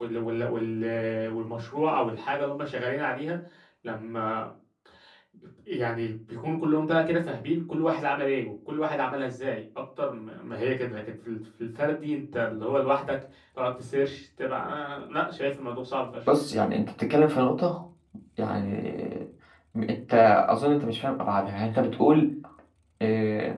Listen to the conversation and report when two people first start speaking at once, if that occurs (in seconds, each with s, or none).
none